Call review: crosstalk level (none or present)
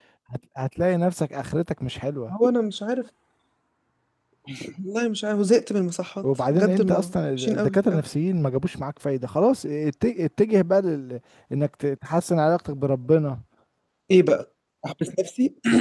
present